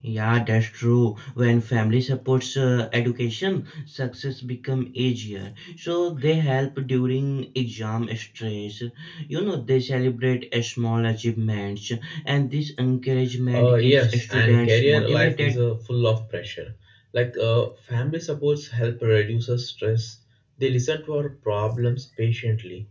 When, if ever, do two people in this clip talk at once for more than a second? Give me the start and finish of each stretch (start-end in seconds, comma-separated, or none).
13.5-15.6